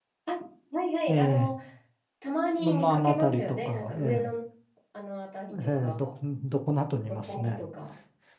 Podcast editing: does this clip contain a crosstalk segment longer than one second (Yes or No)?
Yes